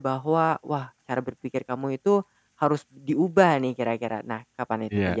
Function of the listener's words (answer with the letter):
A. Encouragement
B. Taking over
B